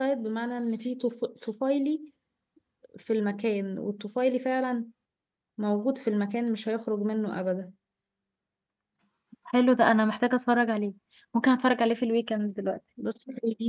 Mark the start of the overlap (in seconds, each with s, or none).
none